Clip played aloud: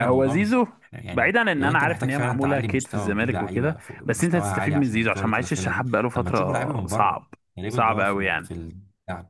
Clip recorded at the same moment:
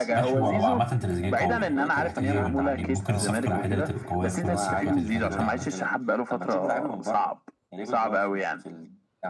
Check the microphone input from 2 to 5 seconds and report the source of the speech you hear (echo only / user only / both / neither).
both